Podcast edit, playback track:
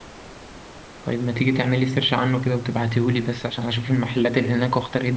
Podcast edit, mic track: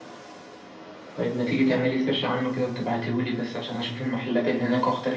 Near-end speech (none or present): none